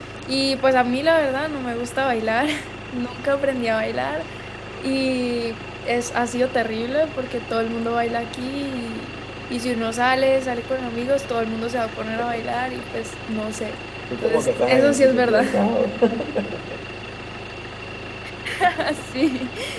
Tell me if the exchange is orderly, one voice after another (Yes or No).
No